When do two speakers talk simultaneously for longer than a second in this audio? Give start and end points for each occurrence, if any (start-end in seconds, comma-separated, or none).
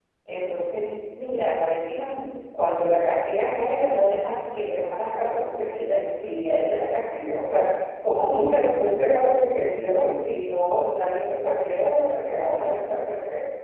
none